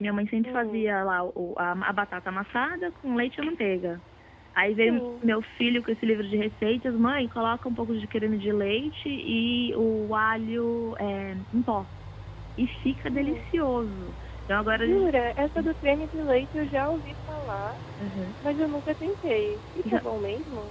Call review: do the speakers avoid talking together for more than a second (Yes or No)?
Yes